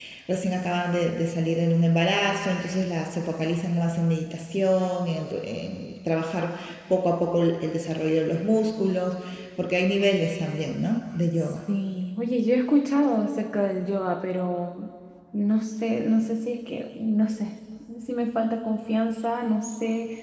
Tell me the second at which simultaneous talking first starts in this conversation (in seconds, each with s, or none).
none